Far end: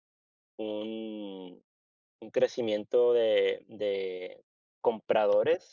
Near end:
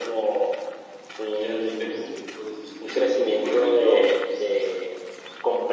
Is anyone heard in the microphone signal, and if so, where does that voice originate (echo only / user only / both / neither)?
both